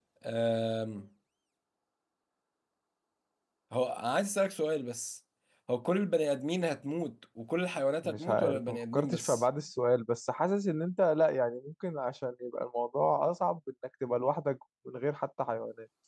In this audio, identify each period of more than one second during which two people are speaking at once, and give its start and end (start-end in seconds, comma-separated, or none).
8.0-9.4